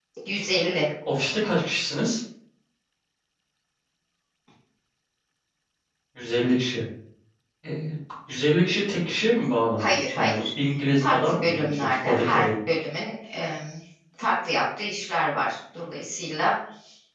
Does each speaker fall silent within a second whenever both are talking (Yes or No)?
No